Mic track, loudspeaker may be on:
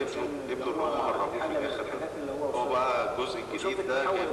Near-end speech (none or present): none